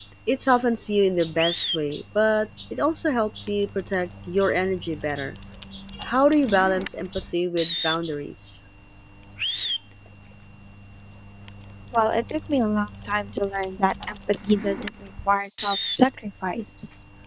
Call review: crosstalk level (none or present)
none